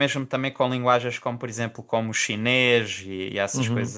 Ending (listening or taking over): taking over